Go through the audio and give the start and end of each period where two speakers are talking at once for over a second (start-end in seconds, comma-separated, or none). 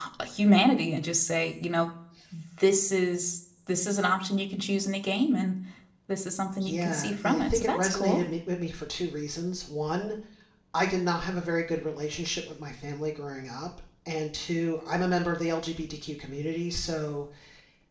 6.6-8.2